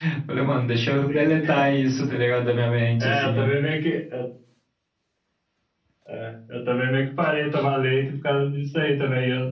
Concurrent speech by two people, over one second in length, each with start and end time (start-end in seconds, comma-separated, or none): none